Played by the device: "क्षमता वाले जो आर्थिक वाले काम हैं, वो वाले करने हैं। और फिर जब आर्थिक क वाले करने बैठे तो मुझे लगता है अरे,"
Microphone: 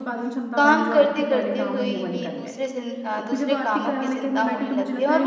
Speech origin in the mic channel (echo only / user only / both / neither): both